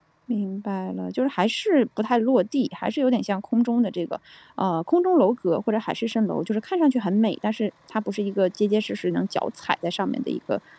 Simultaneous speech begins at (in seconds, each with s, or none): none